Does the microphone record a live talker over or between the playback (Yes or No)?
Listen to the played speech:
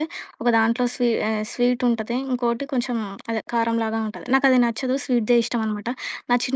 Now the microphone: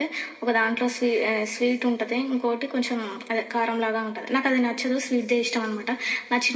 No